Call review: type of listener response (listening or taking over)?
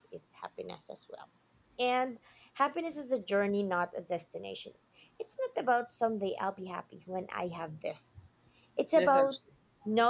listening